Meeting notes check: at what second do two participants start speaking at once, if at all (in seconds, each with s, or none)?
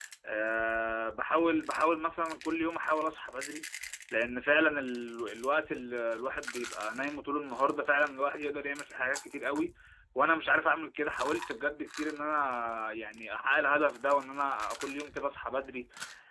none